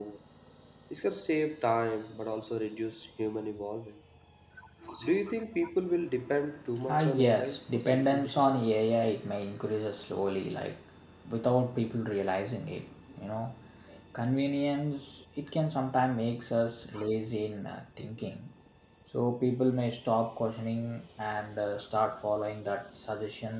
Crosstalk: present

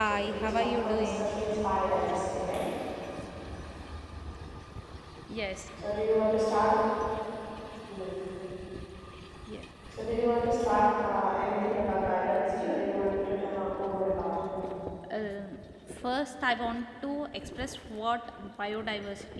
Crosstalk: present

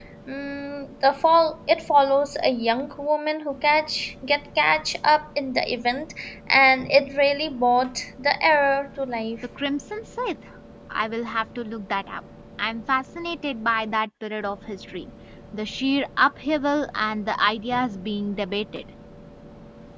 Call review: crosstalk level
none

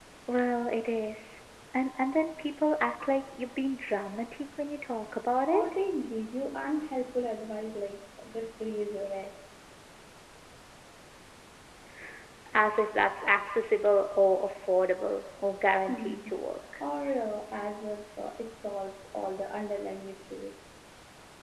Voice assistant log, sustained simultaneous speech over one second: none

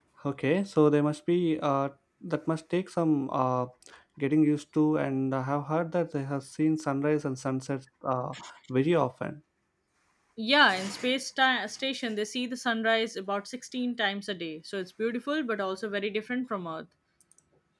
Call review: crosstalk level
none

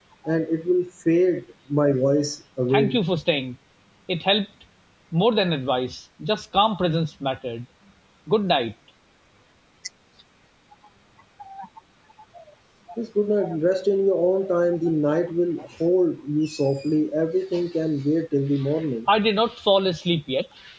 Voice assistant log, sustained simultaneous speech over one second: none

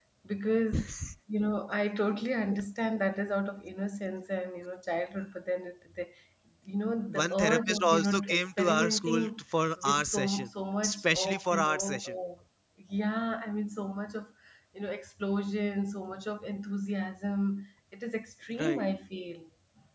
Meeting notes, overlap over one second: present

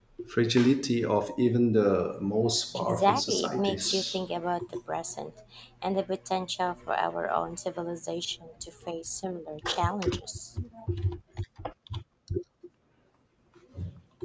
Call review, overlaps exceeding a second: present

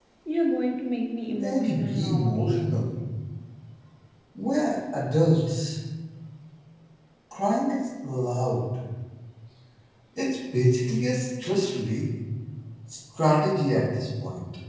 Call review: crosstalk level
present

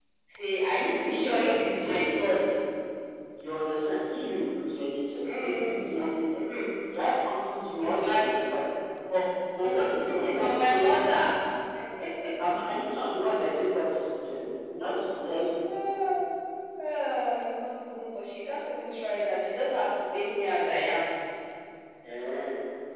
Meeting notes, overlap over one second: present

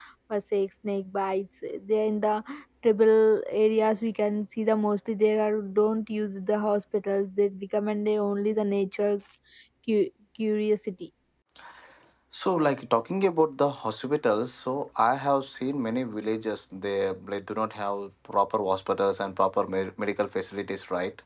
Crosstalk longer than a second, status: none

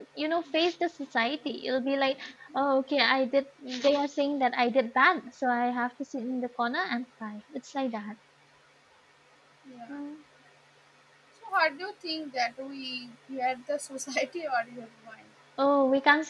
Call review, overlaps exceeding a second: none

